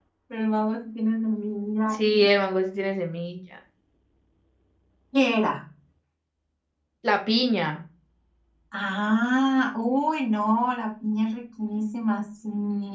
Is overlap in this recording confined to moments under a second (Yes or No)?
Yes